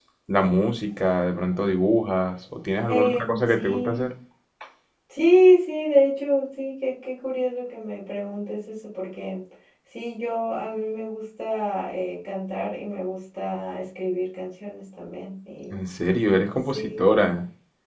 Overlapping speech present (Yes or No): Yes